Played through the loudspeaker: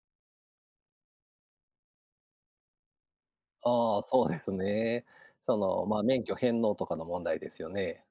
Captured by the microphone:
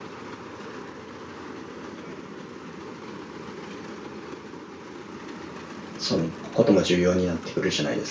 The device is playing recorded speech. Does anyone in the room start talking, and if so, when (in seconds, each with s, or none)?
6.0 s